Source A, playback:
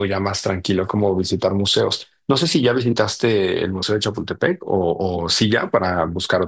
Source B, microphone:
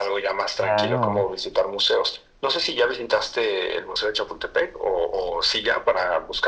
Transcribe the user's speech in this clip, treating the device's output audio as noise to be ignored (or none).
claro,